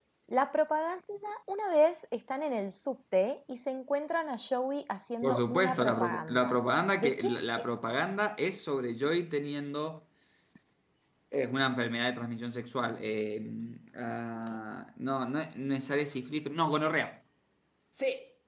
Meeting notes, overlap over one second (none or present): present